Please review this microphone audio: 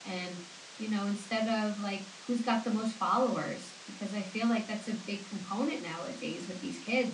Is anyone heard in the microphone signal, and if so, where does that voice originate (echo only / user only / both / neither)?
user only